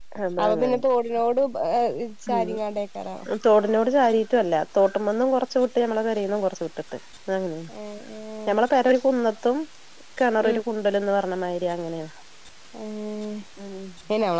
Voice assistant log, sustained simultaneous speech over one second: none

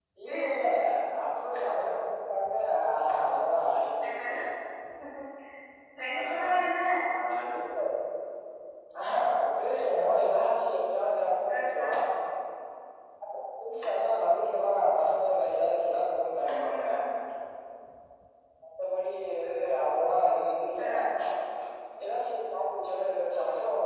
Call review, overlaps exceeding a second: none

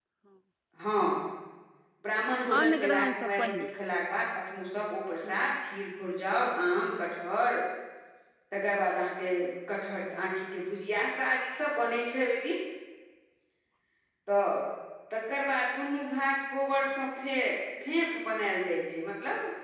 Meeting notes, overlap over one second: present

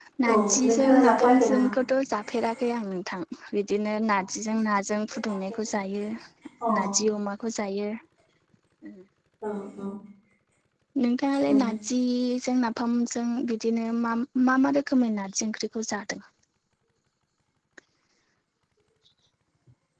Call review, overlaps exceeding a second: present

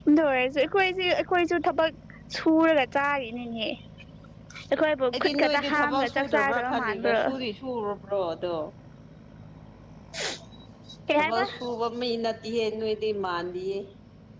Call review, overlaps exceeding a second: present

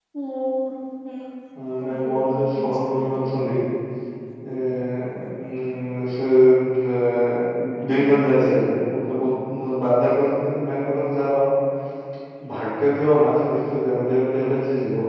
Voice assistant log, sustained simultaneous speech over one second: present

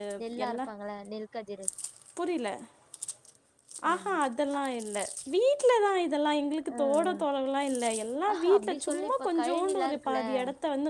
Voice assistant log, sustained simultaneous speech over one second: present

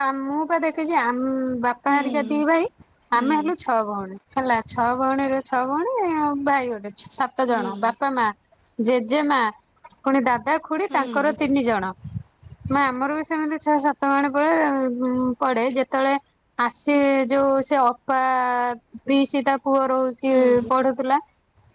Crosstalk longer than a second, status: none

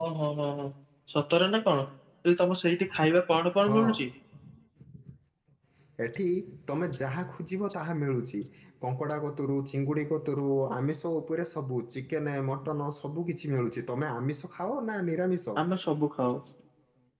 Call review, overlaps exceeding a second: none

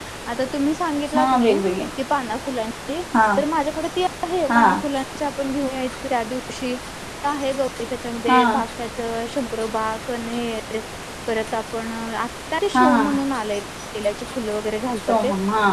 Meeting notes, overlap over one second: none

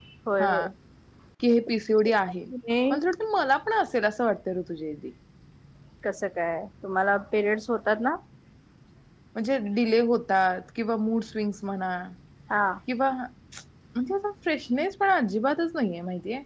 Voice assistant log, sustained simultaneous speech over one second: none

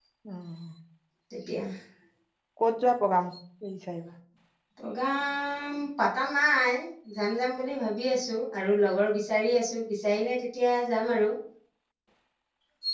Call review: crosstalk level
none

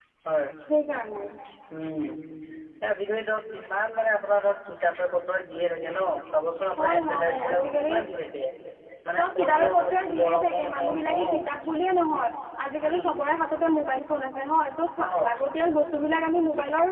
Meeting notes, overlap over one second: present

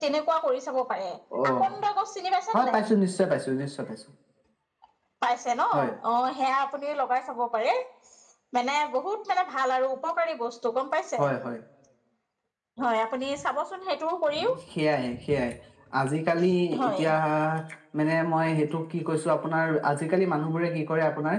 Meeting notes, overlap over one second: none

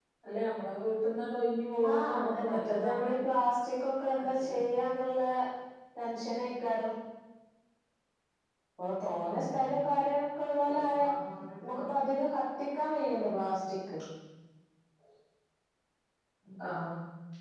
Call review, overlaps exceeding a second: present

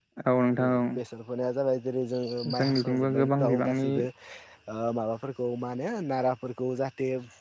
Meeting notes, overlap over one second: present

